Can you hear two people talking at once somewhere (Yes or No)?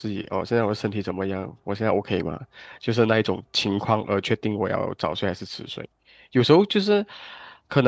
No